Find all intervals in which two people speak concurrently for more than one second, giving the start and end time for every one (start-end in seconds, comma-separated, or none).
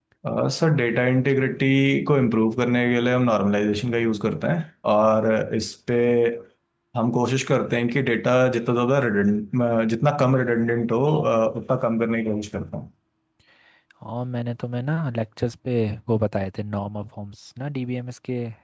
none